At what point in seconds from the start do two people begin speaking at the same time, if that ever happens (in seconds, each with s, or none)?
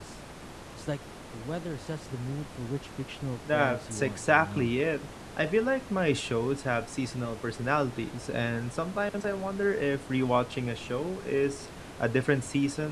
3.5 s